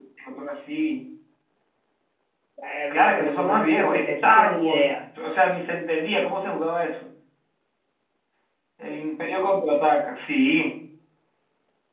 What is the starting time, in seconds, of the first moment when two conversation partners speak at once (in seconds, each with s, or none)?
2.9 s